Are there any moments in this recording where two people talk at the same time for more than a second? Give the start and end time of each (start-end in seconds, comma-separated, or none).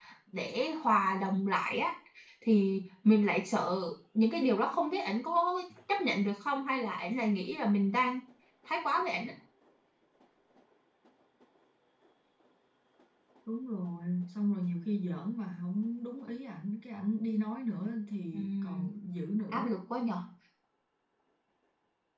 none